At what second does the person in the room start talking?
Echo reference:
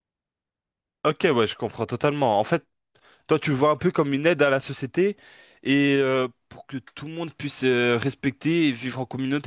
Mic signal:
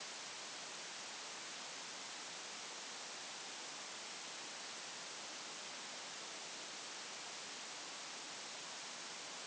none

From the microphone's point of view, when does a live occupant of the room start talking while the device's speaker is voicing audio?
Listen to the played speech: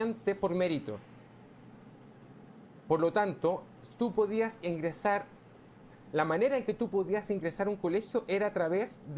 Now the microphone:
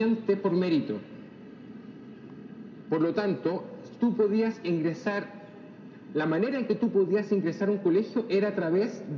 none

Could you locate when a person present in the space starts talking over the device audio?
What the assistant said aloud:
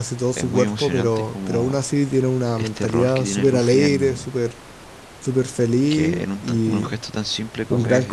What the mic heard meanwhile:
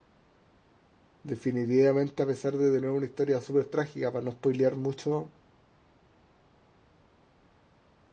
1.2 s

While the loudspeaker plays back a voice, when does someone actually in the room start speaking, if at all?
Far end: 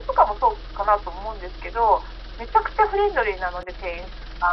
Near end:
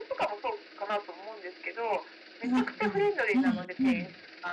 2.4 s

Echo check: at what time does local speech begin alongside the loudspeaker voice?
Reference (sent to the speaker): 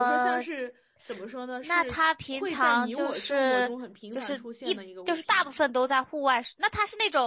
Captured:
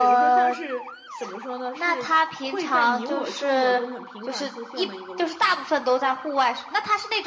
none

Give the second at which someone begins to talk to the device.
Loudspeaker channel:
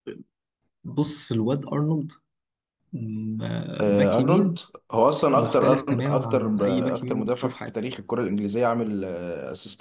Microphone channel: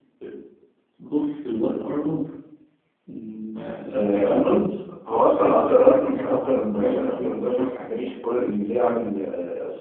none

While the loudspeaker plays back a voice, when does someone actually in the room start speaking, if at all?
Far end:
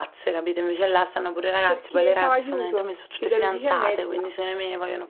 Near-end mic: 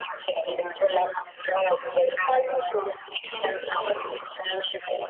none

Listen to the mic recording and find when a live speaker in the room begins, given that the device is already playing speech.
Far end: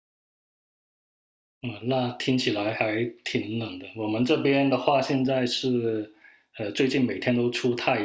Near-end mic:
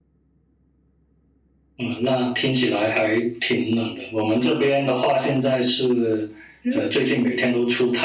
6.6 s

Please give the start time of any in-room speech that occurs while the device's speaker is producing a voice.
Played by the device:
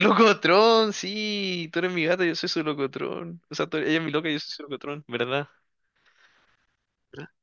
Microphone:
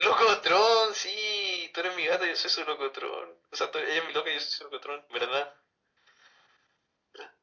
none

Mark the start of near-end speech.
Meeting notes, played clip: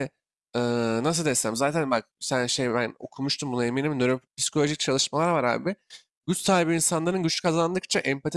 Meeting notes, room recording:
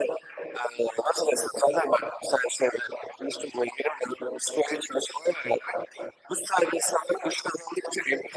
none

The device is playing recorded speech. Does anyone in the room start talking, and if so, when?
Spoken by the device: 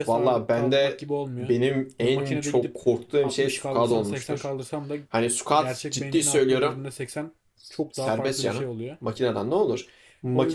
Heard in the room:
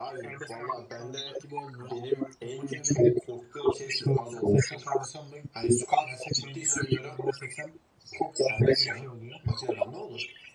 none

